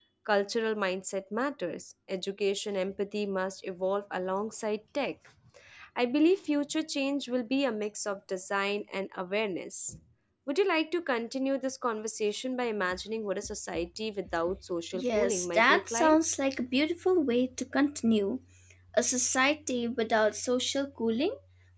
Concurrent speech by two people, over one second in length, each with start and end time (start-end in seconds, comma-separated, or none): 14.9-16.2